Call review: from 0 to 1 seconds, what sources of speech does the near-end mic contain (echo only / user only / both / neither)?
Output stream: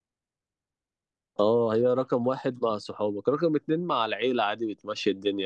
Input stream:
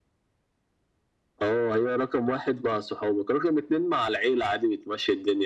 neither